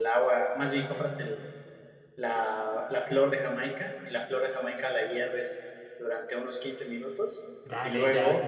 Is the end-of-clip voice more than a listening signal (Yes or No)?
Yes